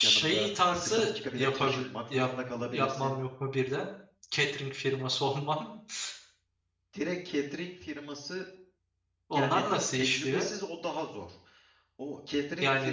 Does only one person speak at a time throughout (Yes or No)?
No